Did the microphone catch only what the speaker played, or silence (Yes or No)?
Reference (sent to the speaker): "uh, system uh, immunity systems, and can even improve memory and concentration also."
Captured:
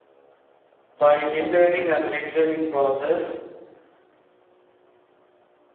No